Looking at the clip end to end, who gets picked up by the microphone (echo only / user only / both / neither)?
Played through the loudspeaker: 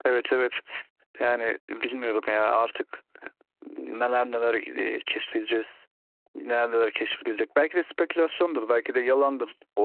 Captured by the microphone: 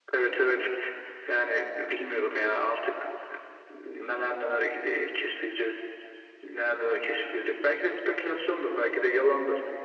echo only